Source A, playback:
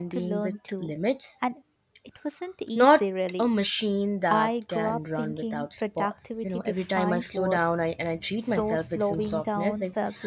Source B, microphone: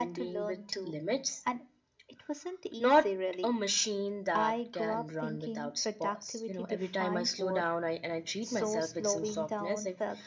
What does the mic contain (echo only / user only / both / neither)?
echo only